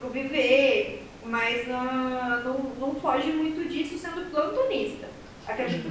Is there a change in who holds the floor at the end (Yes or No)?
No